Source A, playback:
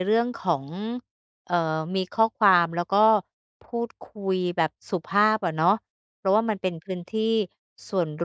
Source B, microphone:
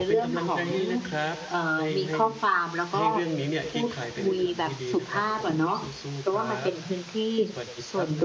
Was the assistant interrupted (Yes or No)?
Yes